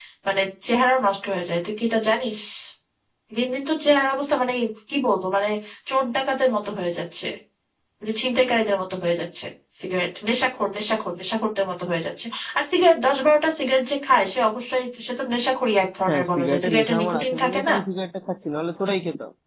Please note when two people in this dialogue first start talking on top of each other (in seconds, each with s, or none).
16.1 s